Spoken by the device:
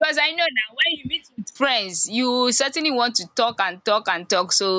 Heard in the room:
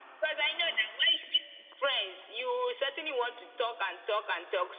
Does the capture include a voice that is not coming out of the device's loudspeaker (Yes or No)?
No